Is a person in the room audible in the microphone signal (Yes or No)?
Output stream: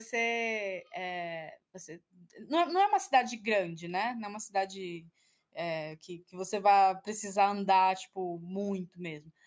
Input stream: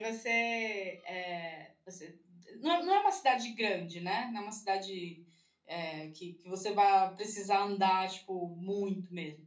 No